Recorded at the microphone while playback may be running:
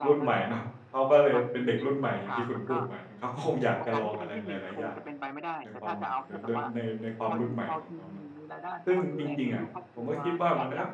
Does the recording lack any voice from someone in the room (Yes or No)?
No